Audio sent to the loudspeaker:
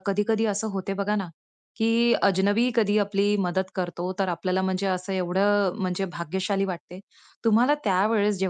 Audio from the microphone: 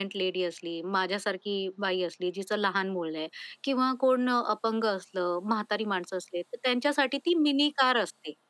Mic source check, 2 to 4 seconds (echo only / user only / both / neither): user only